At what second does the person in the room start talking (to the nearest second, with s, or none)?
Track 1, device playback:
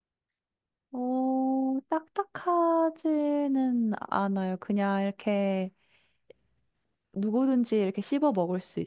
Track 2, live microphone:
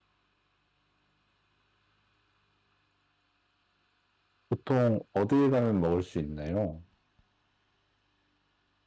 4 s